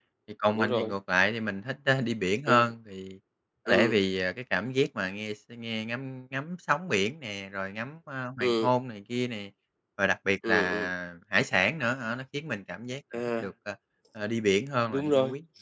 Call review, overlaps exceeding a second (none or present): none